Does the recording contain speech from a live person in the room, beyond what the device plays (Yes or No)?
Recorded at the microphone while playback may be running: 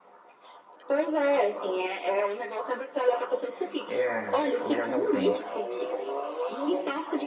Yes